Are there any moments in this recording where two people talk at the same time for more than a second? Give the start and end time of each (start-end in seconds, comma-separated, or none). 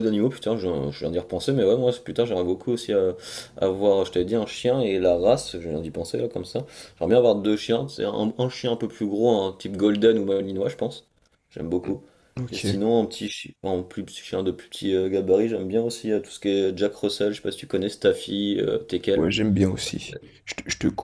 none